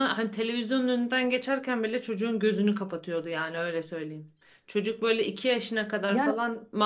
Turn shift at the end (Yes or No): No